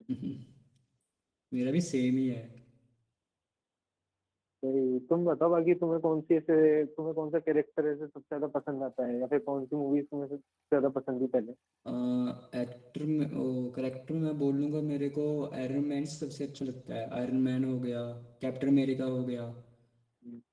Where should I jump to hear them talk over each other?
none

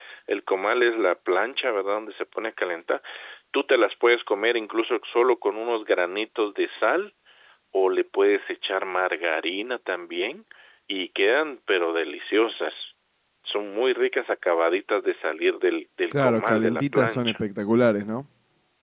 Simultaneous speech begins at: 16 s

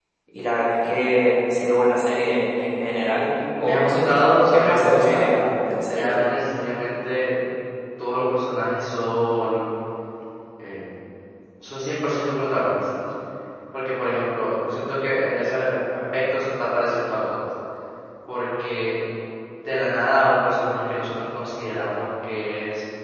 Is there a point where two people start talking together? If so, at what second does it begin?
4 s

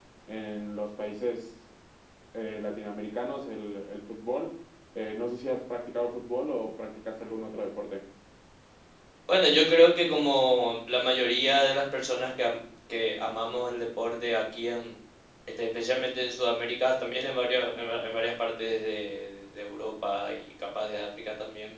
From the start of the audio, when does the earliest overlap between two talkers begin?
none

